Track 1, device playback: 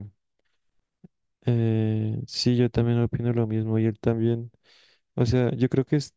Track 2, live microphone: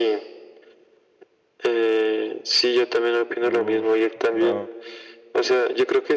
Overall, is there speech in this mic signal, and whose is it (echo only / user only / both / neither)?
both